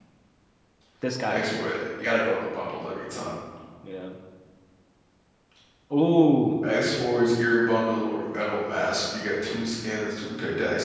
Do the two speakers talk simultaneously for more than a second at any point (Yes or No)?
No